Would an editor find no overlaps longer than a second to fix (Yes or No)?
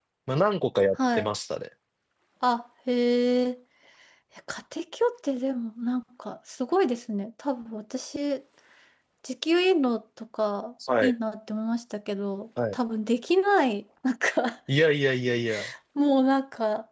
Yes